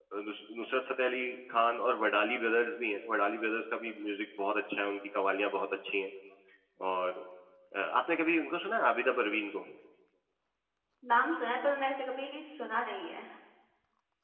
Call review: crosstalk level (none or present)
none